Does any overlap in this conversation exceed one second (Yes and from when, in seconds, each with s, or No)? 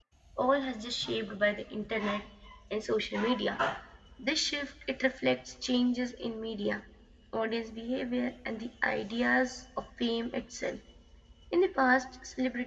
No